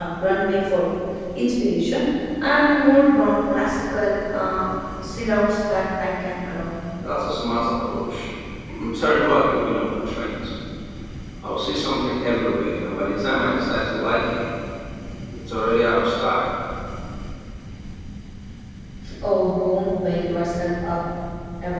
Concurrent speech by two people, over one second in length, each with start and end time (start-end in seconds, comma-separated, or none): none